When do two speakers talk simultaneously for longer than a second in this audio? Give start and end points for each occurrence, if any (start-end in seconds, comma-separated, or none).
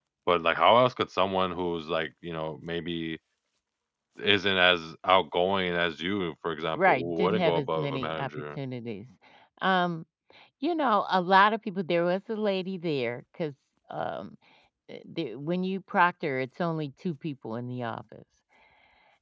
6.8-8.3